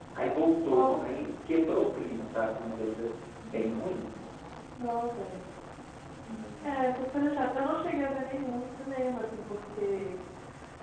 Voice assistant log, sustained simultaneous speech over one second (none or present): none